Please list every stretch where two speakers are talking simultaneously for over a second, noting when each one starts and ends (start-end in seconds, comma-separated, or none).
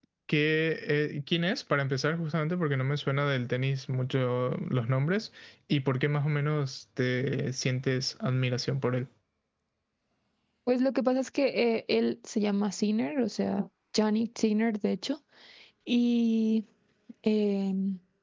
none